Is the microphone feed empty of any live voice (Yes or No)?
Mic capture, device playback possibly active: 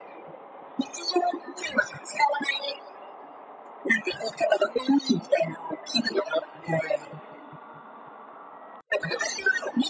Yes